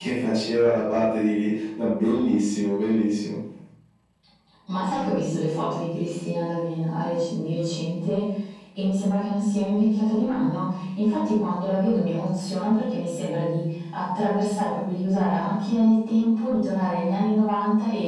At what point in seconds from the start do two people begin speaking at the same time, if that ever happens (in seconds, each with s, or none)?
none